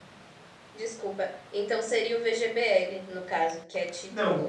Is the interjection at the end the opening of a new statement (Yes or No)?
Yes